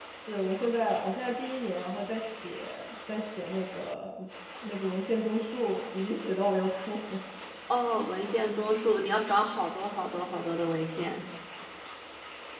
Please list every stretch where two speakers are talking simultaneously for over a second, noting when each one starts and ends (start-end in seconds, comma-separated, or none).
none